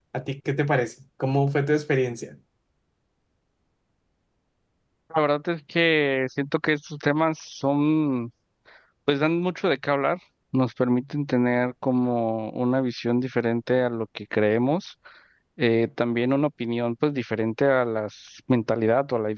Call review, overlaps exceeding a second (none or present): none